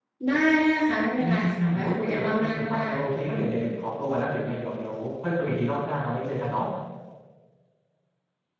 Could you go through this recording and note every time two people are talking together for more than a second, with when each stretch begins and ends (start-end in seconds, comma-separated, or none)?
1.2-2.8